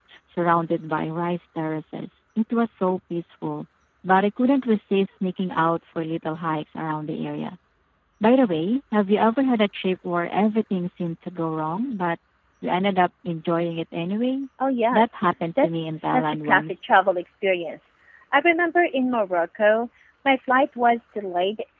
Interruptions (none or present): present